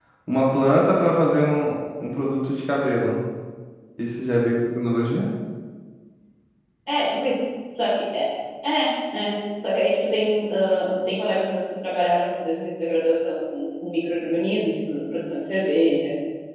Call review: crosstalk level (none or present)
none